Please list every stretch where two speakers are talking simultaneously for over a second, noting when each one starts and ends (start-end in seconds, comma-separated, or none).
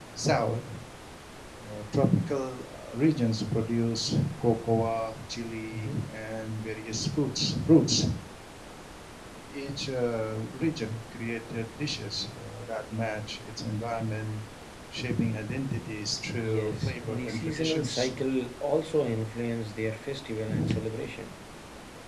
16.4-18.1